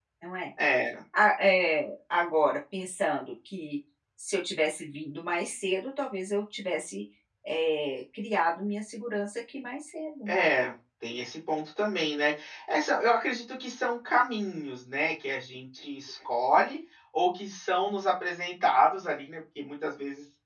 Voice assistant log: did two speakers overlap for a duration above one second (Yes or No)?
No